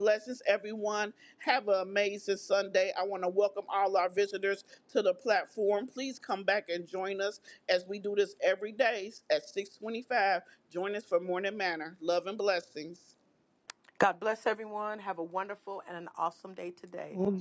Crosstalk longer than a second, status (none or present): none